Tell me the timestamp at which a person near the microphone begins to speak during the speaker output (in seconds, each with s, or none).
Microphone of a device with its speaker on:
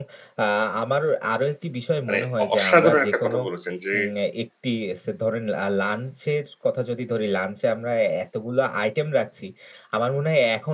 2.0 s